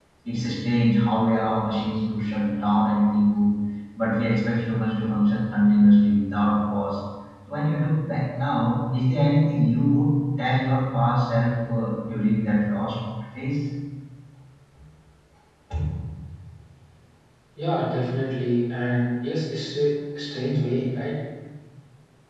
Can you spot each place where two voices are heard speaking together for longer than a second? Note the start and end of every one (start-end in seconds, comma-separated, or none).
none